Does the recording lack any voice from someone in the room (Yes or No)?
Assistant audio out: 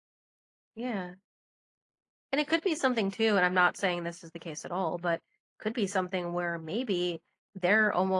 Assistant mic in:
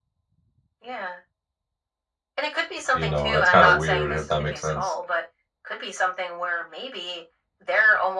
No